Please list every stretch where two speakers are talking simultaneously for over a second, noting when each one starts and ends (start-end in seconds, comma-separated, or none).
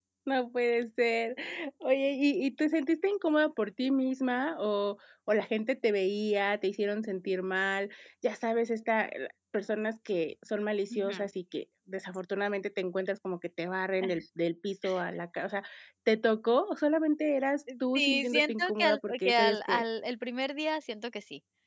17.9-19.8